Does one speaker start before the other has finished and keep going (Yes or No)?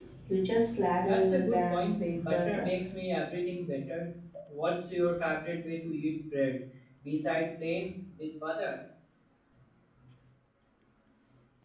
Yes